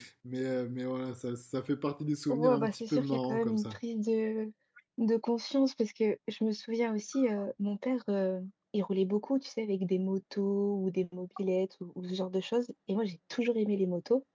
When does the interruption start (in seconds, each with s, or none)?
2.3 s